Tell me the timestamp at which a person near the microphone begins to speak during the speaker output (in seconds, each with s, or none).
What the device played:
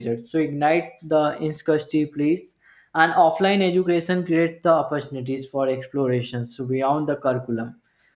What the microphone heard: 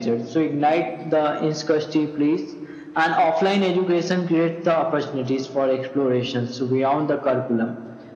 none